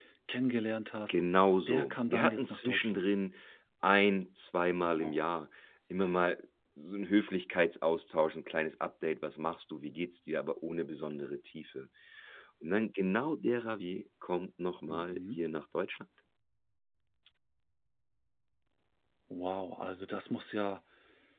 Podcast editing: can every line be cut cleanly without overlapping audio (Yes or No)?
No